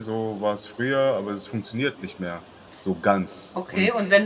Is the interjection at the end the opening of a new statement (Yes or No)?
Yes